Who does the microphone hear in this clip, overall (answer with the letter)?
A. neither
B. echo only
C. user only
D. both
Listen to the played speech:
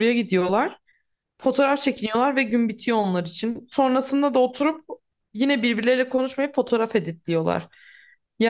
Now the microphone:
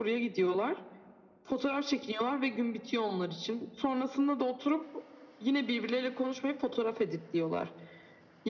B